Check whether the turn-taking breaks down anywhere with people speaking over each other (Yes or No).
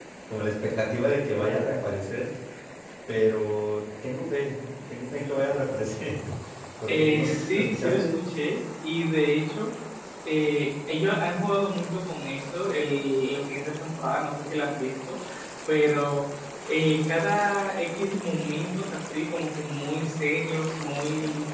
Yes